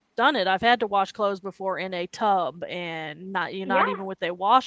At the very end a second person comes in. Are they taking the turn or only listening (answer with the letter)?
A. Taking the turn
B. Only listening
B